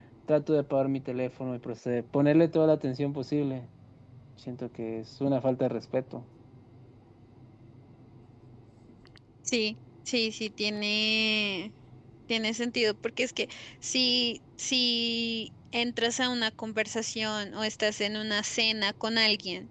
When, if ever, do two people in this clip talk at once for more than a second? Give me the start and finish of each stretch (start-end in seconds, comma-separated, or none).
none